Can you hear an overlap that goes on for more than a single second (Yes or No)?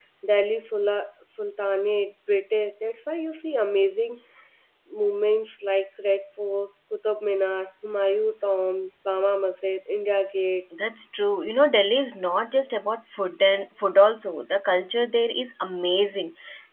No